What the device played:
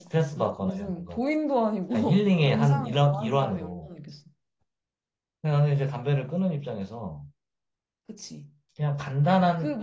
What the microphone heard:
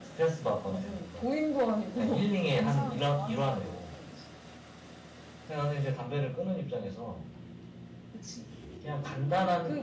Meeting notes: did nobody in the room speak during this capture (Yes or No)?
Yes